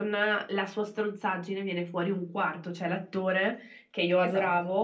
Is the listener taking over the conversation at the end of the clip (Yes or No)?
No